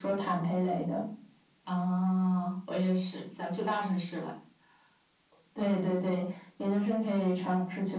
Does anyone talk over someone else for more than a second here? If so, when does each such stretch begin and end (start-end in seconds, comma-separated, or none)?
none